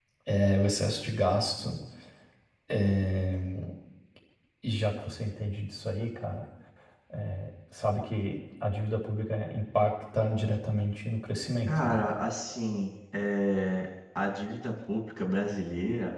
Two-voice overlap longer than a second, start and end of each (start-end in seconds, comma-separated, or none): none